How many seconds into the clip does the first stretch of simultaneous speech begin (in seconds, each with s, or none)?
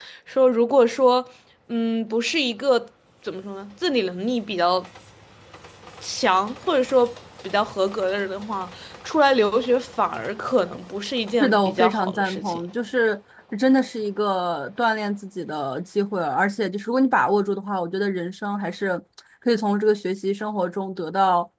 11.4 s